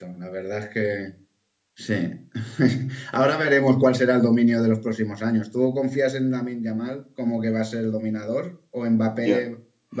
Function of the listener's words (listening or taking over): listening